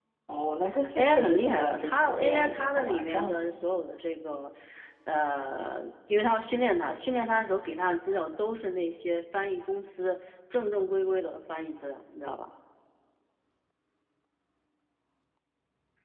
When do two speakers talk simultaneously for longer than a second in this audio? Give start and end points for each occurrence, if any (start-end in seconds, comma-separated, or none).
1.0-3.4